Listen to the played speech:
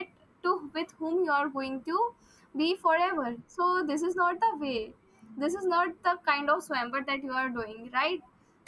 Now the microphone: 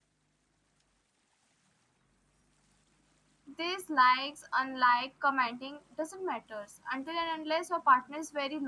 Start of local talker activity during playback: 3.6 s

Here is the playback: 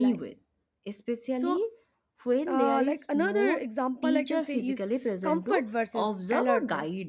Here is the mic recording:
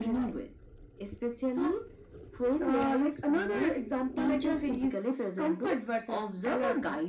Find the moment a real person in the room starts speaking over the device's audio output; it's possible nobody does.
none

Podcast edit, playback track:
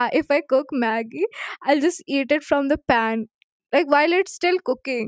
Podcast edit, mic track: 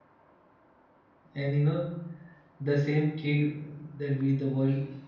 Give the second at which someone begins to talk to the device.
1.3 s

